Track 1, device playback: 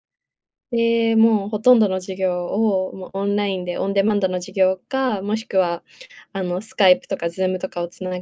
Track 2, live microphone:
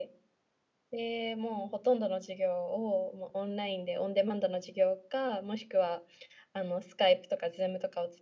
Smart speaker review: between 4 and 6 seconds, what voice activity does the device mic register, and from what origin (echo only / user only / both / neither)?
echo only